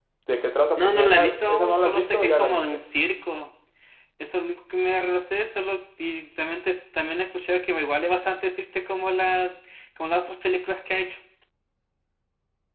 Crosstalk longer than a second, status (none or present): present